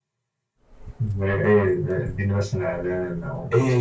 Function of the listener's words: taking over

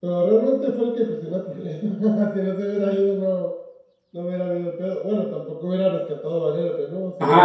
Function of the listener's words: taking over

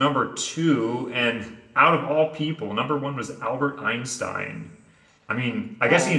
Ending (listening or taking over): listening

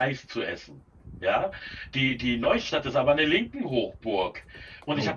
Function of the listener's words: listening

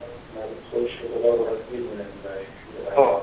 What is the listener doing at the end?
taking over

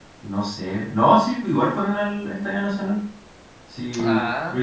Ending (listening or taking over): listening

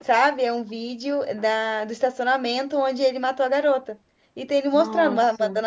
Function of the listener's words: listening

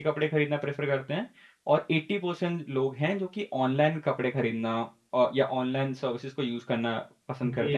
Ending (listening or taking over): taking over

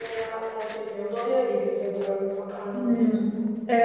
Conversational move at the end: taking over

